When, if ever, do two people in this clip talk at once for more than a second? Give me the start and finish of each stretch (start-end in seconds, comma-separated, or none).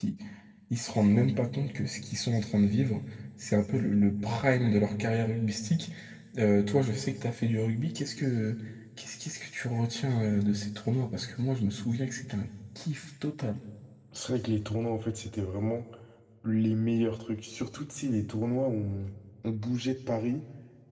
none